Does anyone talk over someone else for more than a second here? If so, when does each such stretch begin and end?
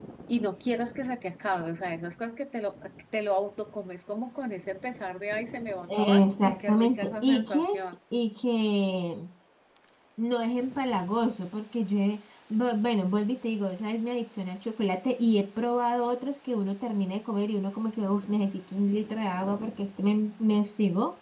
5.8-7.7

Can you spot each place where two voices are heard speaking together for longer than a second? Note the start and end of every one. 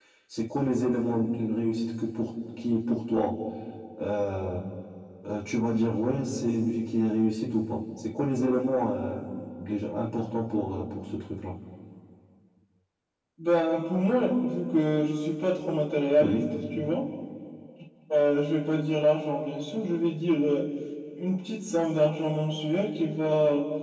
none

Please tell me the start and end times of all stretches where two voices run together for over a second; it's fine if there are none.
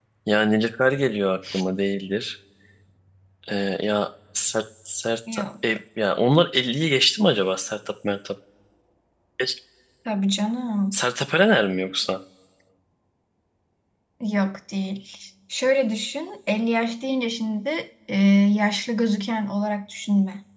none

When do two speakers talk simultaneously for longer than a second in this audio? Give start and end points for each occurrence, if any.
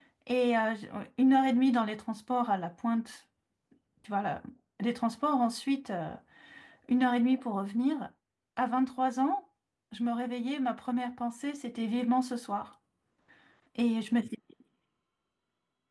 none

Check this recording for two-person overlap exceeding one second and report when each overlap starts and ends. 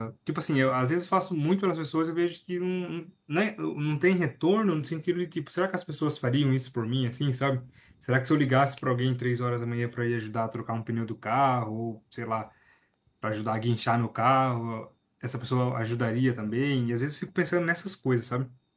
none

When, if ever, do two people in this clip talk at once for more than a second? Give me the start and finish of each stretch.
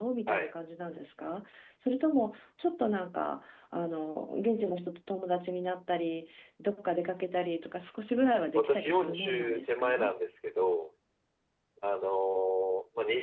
8.6-10.1

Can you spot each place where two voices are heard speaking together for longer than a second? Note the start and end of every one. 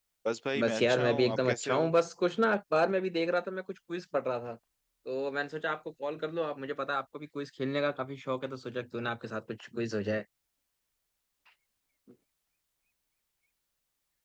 0.6-1.9

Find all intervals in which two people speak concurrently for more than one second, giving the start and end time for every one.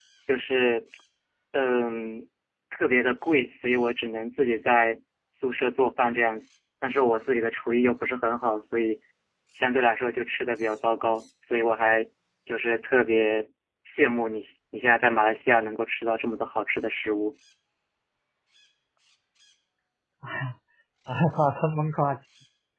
none

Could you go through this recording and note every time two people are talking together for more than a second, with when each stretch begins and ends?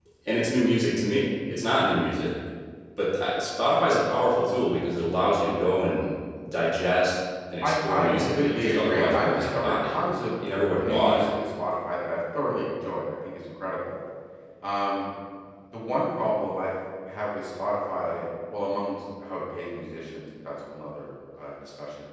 7.6-9.9

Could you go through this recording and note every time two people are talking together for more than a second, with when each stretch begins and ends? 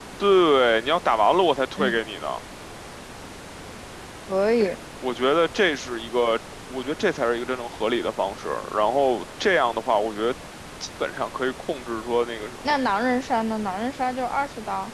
none

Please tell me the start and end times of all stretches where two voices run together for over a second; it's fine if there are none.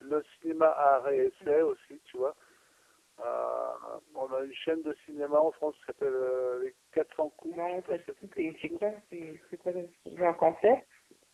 7.4-8.8

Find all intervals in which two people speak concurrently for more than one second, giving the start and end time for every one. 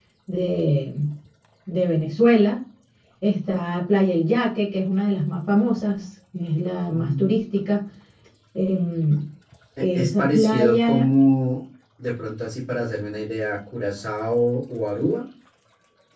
9.8-11.1

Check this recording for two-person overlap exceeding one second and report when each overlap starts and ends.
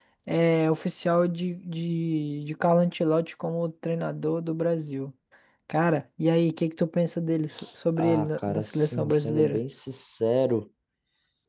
8.0-9.6

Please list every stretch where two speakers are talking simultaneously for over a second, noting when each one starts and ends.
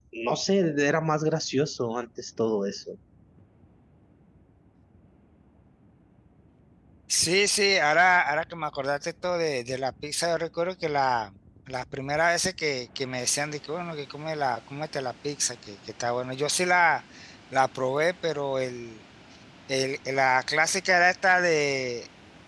none

